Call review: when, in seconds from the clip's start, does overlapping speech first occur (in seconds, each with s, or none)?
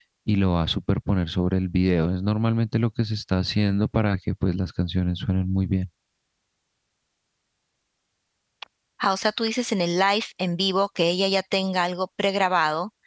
none